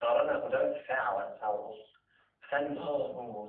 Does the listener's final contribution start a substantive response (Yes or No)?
Yes